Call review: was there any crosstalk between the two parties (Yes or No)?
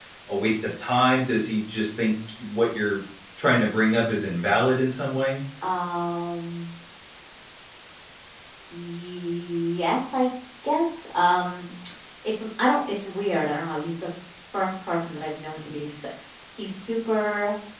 No